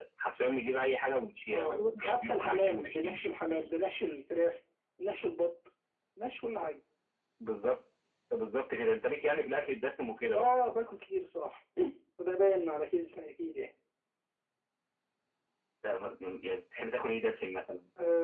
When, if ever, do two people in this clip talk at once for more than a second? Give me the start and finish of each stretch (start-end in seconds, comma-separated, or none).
1.5-3.7